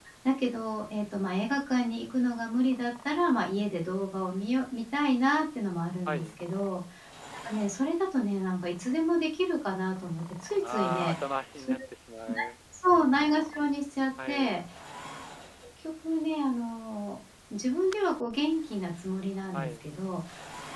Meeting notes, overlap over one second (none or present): none